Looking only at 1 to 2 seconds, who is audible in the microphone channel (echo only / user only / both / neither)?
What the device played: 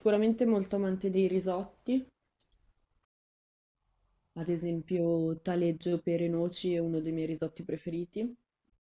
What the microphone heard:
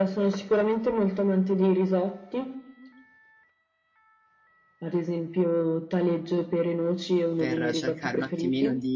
echo only